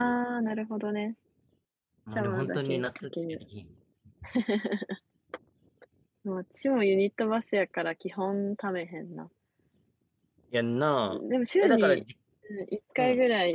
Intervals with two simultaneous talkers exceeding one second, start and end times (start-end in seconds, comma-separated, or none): 2.1-3.4